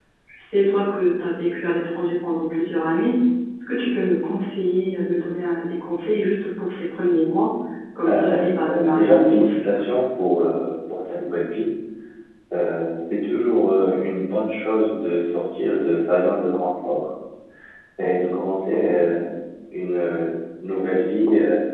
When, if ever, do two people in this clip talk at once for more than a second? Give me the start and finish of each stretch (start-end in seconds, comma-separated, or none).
8.1-9.8